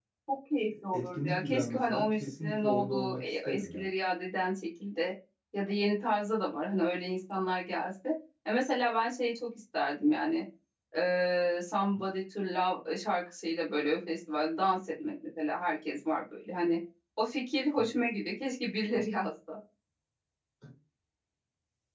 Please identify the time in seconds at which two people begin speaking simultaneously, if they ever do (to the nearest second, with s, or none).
1 s